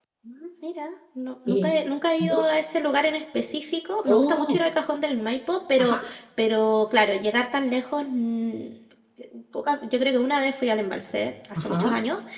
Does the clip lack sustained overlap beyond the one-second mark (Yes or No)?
Yes